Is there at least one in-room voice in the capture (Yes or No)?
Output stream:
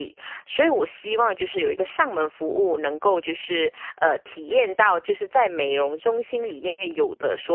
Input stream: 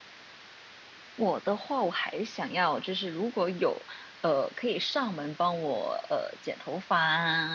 Yes